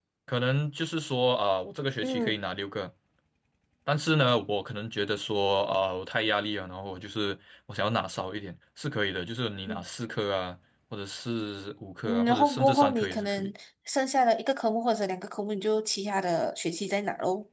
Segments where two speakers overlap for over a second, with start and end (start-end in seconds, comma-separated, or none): 12.1-13.5